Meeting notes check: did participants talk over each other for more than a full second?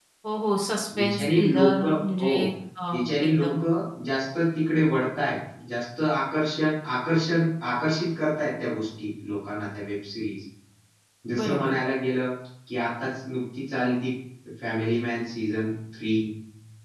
Yes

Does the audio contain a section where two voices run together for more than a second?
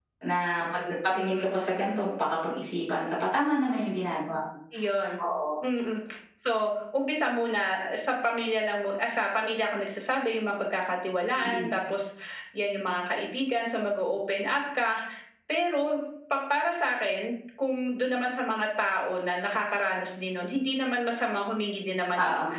No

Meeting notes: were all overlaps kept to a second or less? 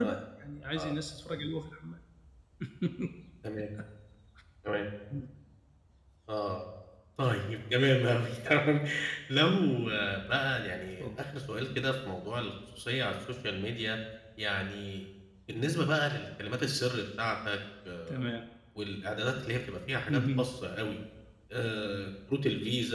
Yes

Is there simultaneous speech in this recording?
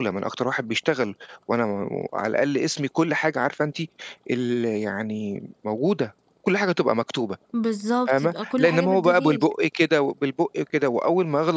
Yes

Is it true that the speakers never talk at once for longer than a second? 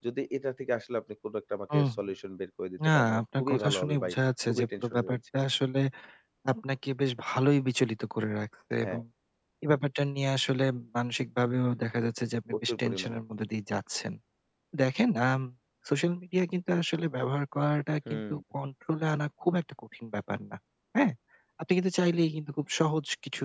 No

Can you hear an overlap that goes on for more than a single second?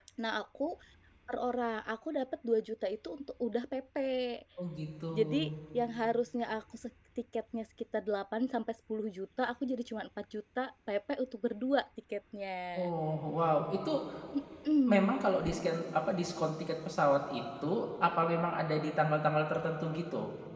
No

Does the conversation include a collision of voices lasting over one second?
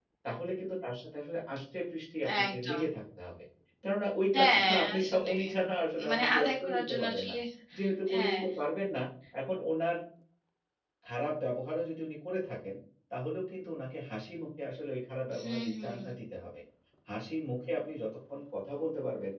Yes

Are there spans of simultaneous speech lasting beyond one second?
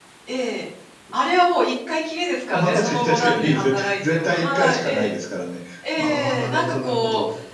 Yes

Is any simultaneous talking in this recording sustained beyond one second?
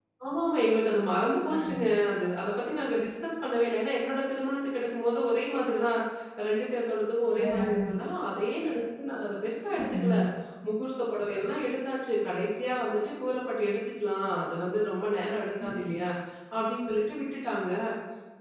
No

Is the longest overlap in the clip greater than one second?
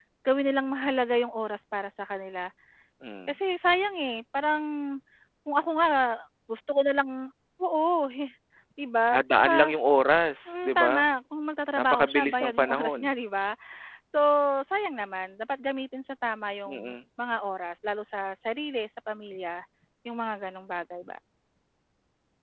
Yes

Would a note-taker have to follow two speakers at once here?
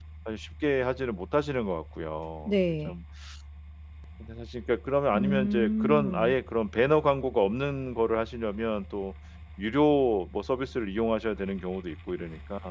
Yes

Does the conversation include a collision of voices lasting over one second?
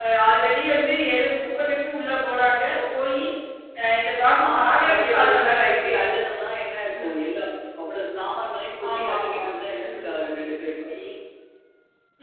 Yes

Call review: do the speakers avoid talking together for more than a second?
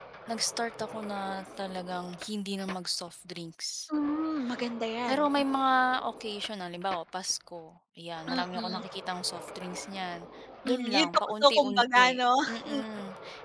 No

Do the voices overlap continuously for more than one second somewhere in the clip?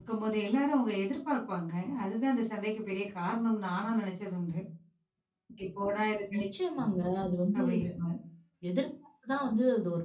No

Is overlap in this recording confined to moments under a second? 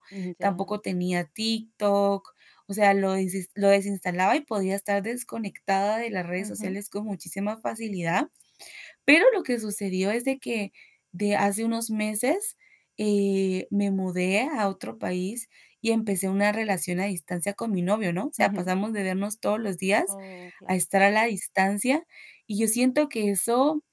Yes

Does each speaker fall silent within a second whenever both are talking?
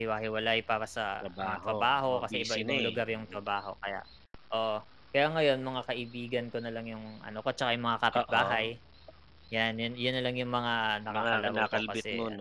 No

